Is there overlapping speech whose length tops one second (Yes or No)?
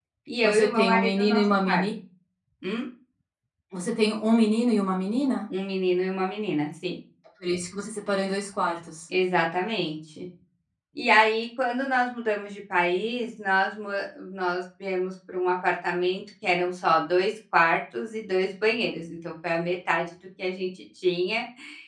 Yes